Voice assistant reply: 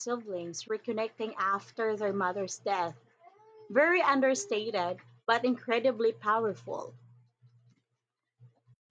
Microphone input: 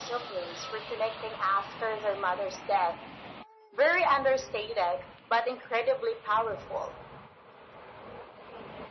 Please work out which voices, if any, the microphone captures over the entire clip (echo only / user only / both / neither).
echo only